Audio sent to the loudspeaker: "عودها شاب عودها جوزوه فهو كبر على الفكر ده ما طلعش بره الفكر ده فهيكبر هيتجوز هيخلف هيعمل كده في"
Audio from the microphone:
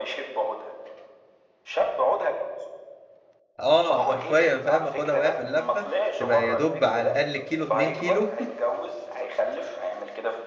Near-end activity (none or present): present